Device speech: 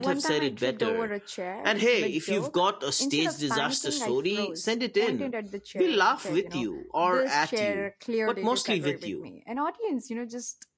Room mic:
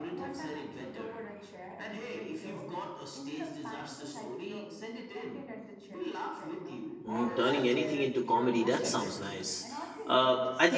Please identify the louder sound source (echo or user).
user